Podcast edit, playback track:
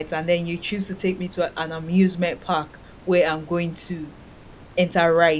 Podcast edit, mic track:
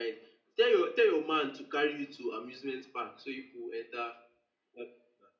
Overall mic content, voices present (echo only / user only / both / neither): user only